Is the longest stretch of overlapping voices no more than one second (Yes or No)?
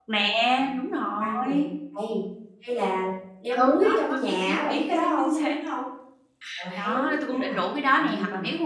No